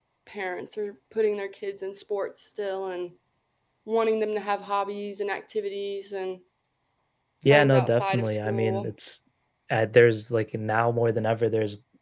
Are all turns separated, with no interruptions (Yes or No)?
No